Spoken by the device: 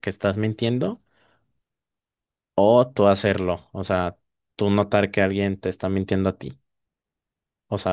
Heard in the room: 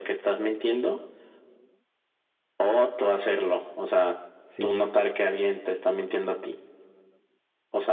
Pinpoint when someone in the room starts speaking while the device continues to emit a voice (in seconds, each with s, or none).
4.4 s